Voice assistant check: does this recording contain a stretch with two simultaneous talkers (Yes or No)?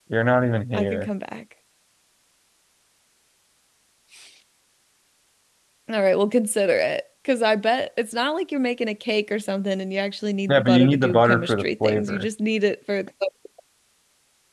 Yes